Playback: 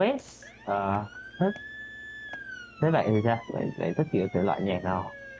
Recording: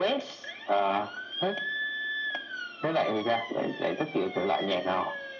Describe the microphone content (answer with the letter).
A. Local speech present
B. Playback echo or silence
B